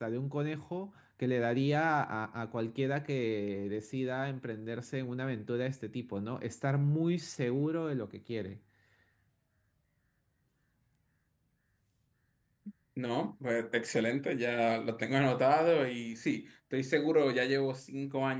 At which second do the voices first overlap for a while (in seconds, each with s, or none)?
none